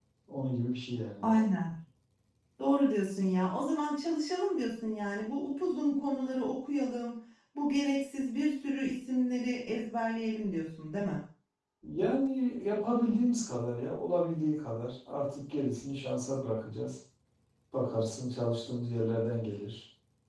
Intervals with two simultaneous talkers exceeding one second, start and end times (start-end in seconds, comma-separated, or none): none